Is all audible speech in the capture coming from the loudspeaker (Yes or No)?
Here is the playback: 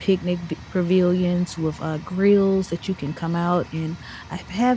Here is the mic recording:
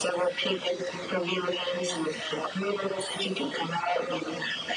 Yes